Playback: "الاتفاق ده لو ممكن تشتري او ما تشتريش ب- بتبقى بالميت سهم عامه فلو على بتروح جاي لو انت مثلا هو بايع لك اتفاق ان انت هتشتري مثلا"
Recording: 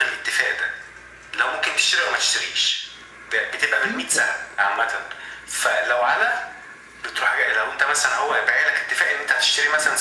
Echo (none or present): present